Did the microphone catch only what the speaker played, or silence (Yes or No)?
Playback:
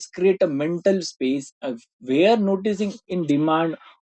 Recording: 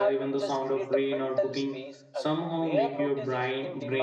No